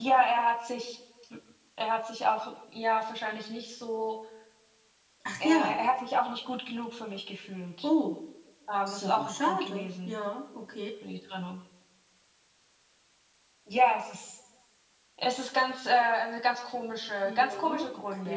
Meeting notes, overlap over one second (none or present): present